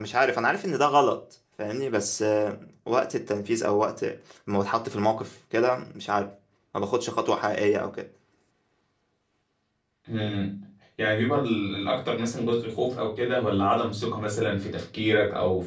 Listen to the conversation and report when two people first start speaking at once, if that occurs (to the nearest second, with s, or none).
none